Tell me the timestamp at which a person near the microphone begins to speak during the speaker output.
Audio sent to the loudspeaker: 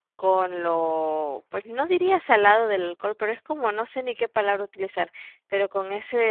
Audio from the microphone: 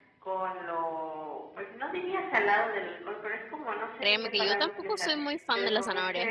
4.0 s

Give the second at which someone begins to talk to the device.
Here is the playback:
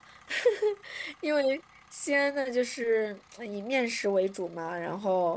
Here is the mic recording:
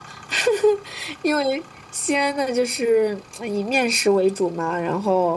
none

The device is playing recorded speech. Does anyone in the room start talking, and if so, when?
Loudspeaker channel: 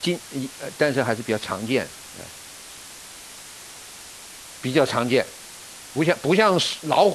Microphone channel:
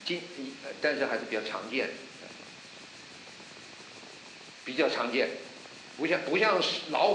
none

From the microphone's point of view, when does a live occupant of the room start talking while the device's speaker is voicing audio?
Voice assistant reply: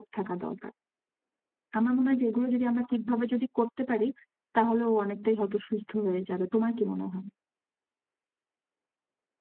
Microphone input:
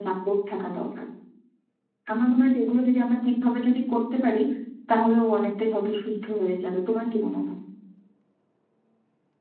none

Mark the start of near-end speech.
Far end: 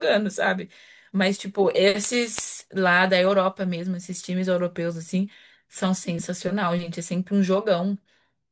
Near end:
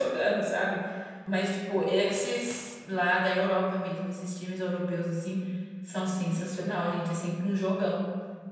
none

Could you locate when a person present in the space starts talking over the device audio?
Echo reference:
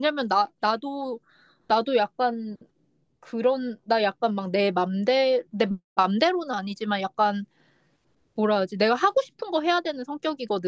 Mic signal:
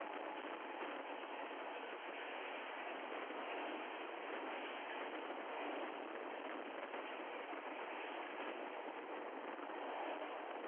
none

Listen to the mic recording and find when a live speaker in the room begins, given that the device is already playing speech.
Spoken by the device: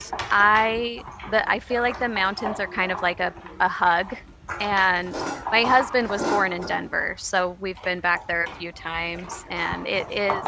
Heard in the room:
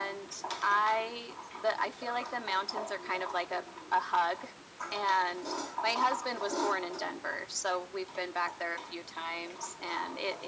none

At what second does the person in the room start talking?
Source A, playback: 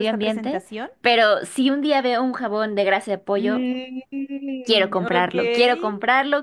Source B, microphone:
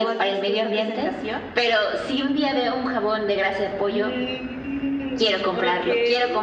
none

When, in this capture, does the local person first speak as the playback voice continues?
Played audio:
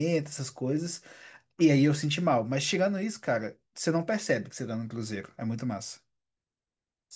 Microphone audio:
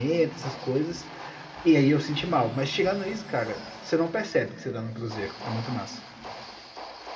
none

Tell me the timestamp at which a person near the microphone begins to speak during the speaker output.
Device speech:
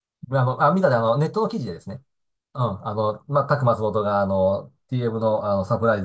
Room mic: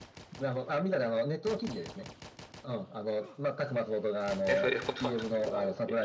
4.5 s

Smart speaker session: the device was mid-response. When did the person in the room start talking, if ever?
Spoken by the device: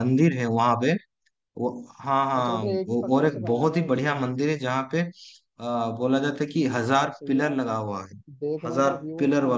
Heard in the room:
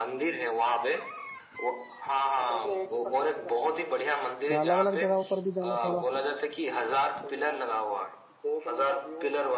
4.5 s

